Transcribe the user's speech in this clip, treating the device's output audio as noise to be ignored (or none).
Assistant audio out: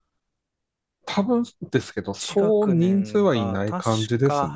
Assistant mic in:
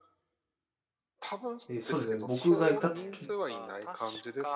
で、そうですね。僕がいたとき